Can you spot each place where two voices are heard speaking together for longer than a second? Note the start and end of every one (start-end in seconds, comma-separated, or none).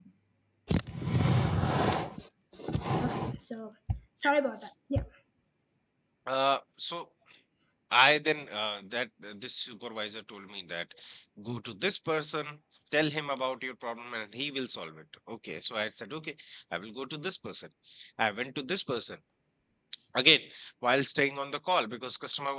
none